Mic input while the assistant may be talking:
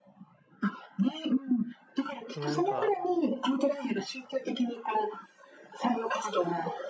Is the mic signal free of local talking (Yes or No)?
No